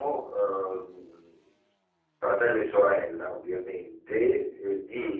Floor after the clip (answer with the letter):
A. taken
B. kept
B